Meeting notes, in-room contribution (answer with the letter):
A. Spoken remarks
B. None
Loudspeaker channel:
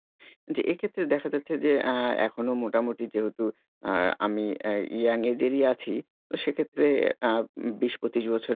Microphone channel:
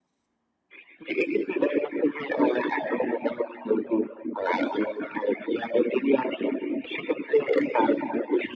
B